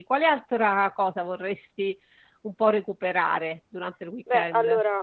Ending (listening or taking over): taking over